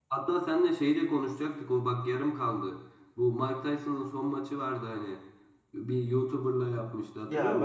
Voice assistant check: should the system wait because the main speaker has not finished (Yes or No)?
No